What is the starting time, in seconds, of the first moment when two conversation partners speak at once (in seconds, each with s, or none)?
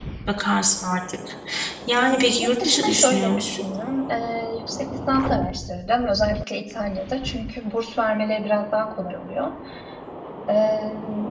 2.4 s